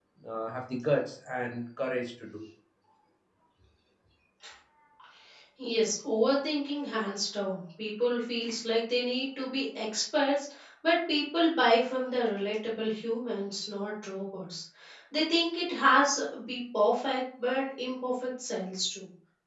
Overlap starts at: none

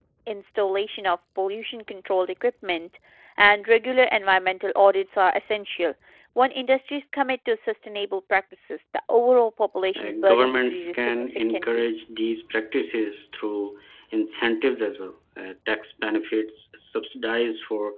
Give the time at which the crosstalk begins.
9.9 s

